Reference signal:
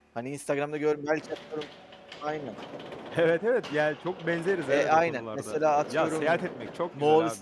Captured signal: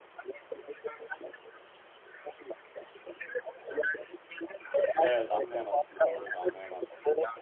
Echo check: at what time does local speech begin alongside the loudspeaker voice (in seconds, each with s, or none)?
5.0 s